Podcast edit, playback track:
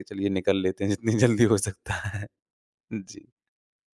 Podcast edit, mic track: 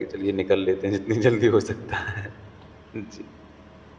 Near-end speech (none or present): none